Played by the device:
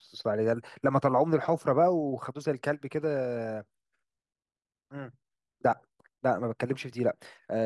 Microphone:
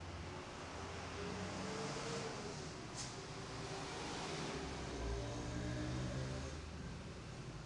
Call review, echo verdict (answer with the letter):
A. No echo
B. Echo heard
A